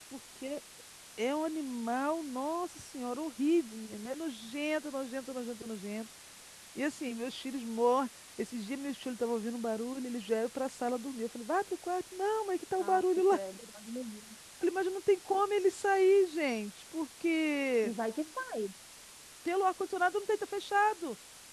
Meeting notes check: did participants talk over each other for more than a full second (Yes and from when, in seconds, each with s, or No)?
No